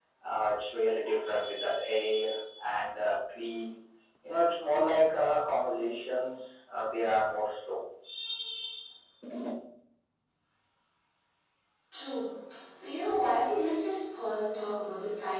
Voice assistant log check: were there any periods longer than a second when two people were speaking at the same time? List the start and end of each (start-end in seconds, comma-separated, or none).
none